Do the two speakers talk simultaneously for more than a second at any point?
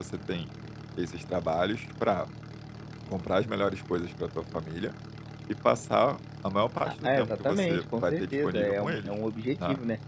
Yes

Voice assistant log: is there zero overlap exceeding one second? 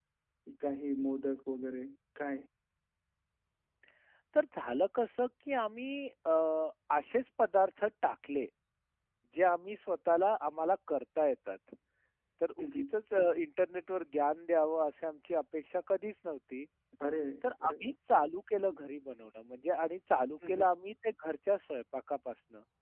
Yes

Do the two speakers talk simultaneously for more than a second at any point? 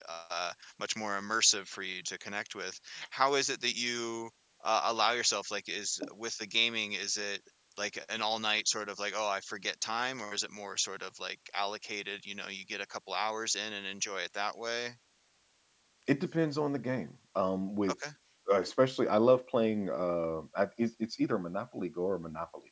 No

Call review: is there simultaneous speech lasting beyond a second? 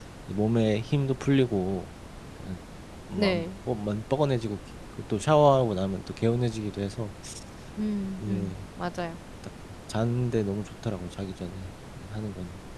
No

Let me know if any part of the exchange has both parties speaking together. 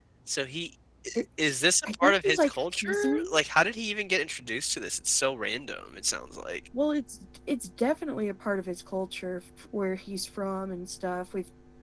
Yes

